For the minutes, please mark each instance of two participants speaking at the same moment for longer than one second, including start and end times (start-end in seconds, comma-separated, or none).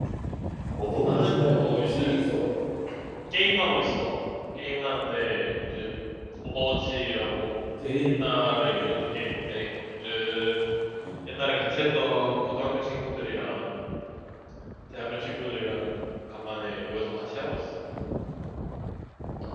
1.0-2.3